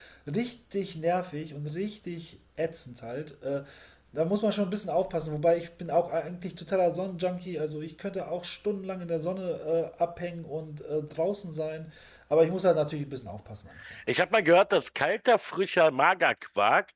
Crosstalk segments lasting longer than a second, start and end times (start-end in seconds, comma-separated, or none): none